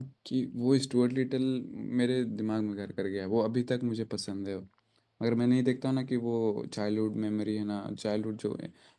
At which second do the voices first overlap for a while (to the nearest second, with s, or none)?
none